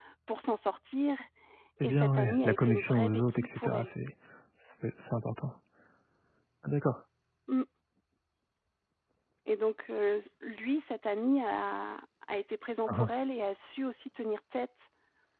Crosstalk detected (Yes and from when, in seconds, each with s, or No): Yes, from 1.8 s